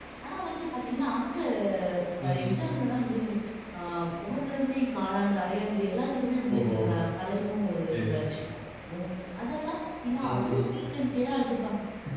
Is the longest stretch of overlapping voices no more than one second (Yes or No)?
Yes